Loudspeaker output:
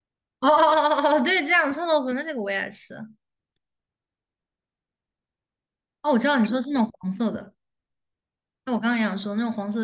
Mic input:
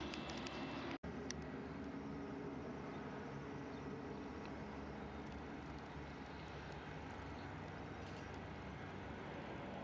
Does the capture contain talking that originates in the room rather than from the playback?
No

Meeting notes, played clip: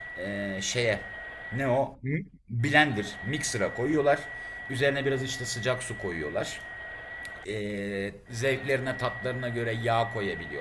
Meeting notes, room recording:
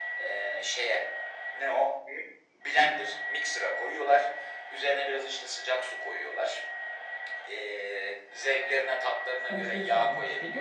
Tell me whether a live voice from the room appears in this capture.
Yes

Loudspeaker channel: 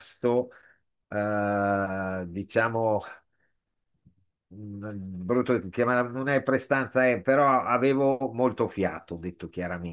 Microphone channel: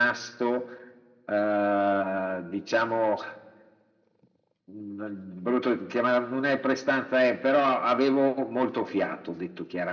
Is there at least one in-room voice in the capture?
No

